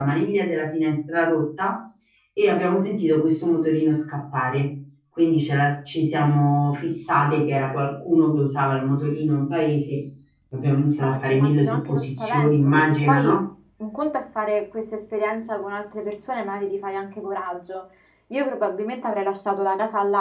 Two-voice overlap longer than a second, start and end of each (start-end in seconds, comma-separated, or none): 11.0-13.4